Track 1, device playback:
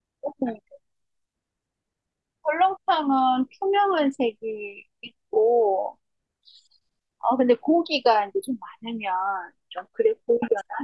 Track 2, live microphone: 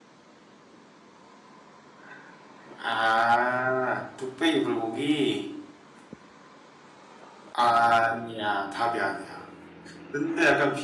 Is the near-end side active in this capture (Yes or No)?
Yes